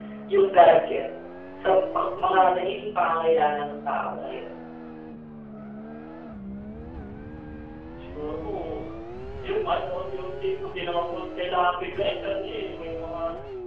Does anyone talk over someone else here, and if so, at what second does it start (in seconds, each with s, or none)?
none